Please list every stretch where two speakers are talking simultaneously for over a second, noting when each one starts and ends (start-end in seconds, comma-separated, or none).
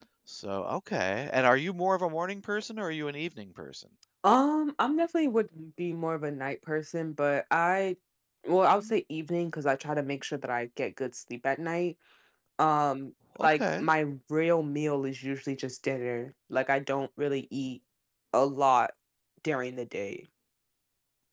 none